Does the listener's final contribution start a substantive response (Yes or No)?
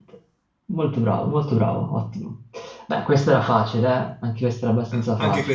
Yes